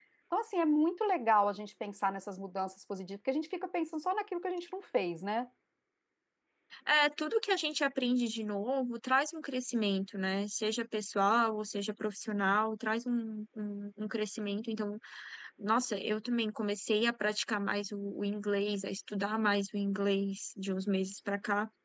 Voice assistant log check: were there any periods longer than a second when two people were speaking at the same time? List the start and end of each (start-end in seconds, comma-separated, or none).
none